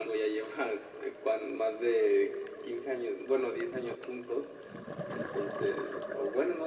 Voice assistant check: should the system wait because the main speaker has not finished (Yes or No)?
Yes